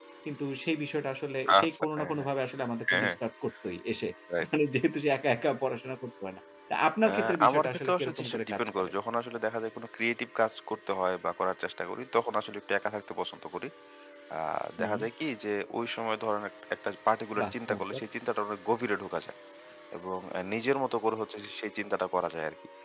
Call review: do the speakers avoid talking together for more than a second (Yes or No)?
No